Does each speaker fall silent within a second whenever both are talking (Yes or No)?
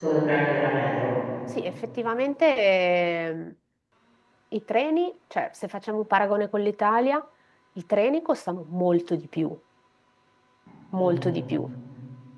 Yes